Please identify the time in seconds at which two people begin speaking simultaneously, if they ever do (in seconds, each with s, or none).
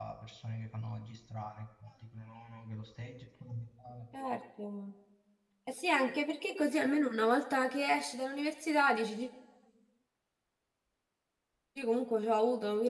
none